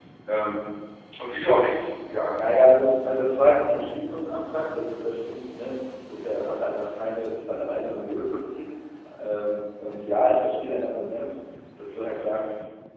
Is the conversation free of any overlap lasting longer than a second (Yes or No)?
Yes